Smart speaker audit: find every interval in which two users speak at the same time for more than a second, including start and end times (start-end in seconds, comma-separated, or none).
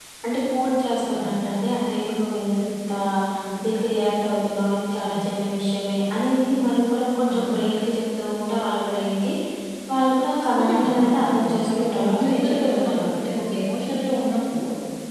10.4-13.0